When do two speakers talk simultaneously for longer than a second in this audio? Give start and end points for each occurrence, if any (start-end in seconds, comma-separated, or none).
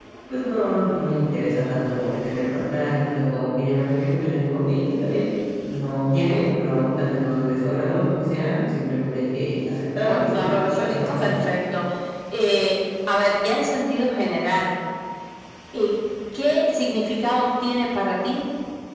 10.1-11.3